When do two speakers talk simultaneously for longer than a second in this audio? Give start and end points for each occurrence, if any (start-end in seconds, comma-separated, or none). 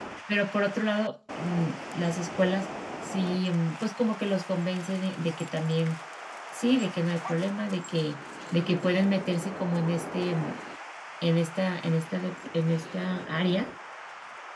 none